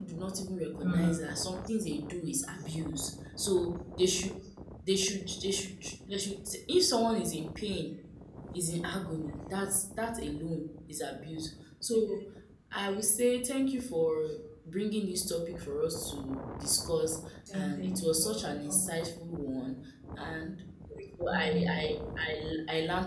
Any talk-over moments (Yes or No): Yes